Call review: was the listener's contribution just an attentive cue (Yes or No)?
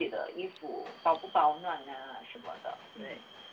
No